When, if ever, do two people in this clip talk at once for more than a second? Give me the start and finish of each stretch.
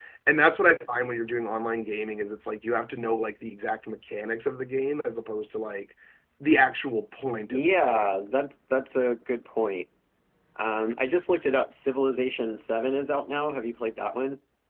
none

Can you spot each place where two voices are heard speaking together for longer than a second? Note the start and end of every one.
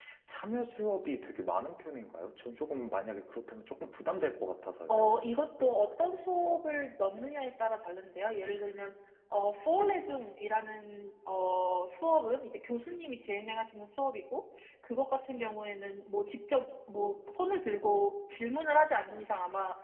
none

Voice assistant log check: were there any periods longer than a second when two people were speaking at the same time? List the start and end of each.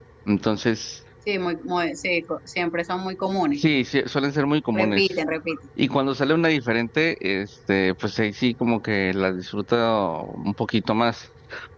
none

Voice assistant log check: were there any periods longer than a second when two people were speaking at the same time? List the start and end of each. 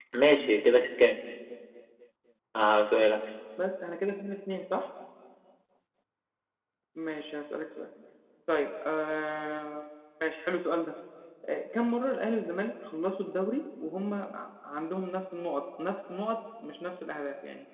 none

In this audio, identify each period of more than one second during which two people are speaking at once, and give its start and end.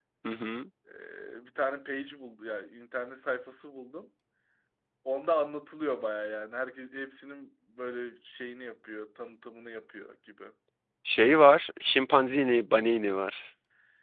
none

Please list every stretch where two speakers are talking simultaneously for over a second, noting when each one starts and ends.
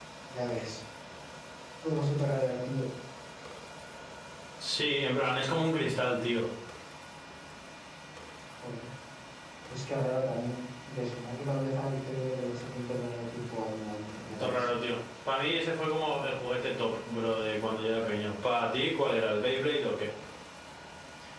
none

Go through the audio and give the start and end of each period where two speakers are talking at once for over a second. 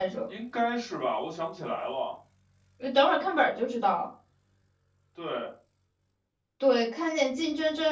none

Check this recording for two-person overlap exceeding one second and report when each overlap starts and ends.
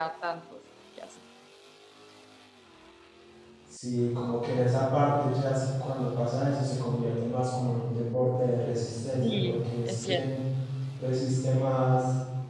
9.2-10.4

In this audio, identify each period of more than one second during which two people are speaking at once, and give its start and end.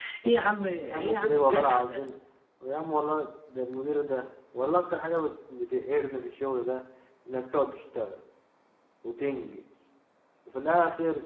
0.9-2.1

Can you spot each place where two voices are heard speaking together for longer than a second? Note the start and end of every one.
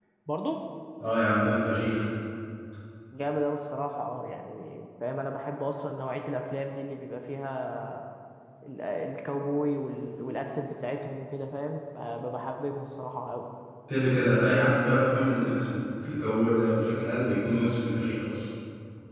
none

